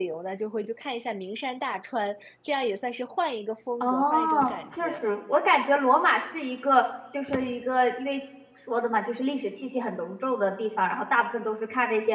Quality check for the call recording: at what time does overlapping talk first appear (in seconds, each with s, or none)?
3.8 s